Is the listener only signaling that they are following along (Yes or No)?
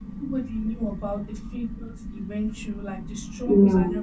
Yes